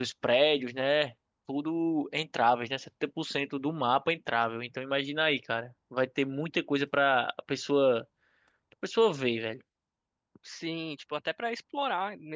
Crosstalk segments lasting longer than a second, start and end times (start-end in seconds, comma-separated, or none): none